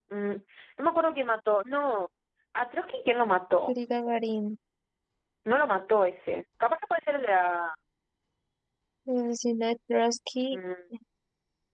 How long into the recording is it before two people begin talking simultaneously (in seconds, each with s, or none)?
none